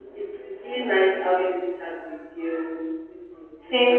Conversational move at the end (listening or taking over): taking over